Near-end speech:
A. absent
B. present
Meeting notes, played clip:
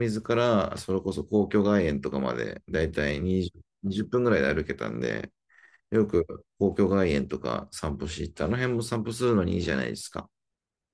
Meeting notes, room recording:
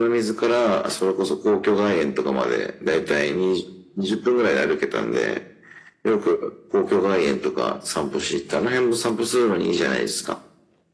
A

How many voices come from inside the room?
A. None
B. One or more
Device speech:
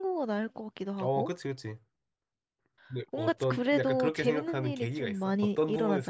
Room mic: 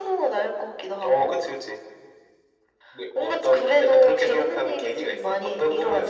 A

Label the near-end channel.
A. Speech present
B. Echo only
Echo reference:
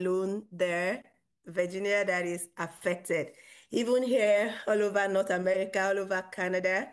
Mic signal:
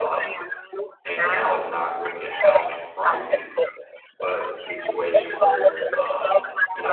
A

